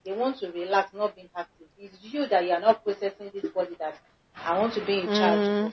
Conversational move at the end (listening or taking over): listening